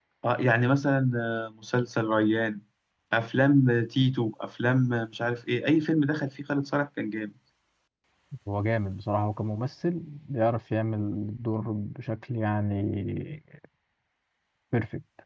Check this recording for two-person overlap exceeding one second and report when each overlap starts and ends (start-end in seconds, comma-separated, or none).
none